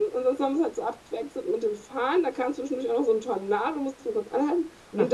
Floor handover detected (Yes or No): No